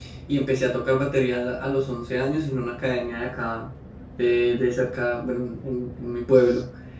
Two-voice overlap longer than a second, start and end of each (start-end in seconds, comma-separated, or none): none